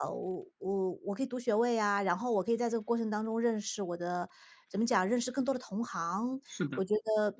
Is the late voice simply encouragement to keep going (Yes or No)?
Yes